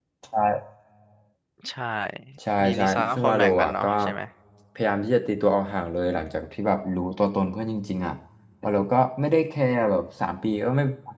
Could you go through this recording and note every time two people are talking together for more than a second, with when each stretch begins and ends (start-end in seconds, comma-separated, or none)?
2.6-3.9